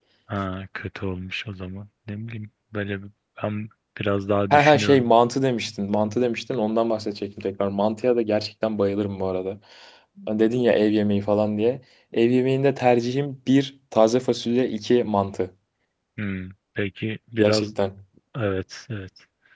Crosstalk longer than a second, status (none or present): none